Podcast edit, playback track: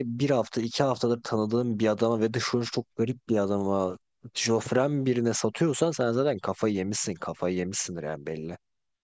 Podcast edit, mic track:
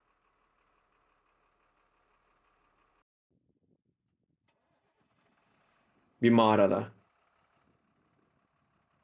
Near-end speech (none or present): present